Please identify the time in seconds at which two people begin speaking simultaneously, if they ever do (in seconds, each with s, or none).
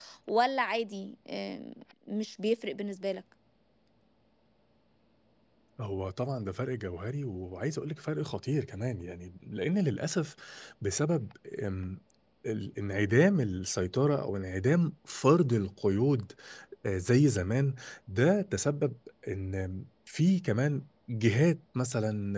none